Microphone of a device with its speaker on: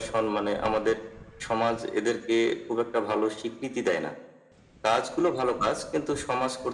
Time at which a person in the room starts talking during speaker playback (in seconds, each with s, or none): none